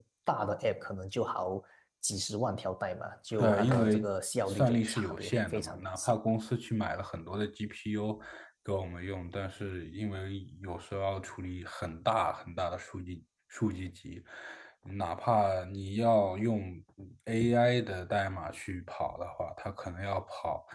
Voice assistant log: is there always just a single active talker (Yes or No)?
No